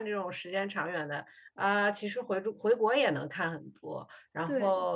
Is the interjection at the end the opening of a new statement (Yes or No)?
No